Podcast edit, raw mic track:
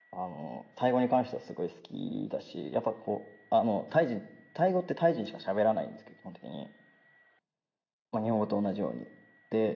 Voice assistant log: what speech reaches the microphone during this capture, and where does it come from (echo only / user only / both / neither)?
echo only